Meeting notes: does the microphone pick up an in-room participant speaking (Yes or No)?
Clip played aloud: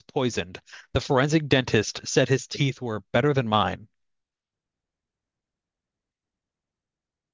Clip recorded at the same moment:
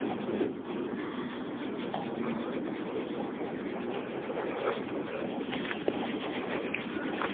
No